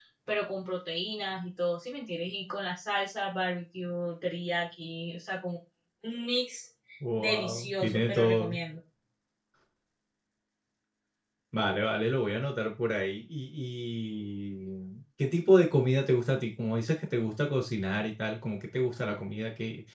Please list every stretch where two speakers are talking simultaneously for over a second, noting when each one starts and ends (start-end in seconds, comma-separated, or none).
7.2-8.6